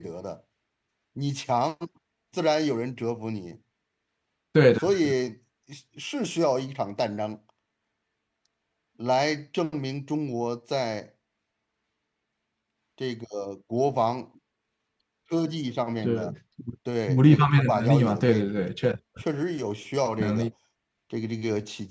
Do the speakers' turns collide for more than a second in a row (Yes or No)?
Yes